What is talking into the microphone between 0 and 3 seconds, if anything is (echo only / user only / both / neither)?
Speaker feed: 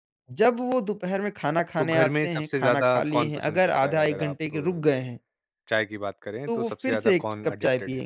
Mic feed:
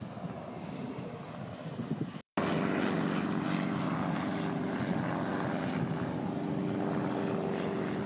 neither